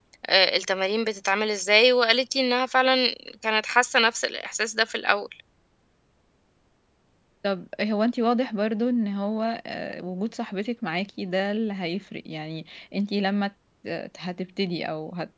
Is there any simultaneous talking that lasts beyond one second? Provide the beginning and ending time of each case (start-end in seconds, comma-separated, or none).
none